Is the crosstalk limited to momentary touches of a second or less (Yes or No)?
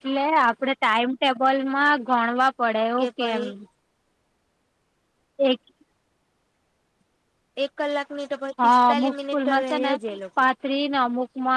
No